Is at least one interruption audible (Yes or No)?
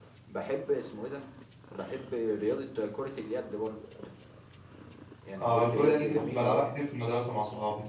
Yes